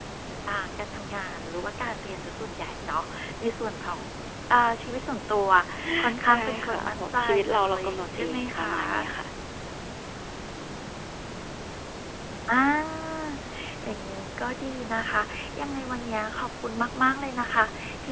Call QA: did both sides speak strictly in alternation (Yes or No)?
No